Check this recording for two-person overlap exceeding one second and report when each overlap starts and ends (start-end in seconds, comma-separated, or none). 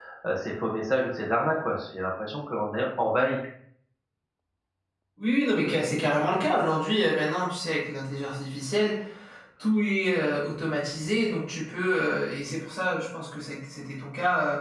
none